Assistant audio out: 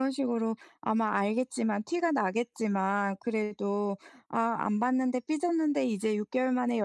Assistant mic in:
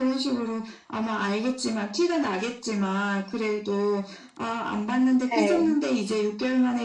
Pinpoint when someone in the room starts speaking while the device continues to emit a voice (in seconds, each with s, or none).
5.3 s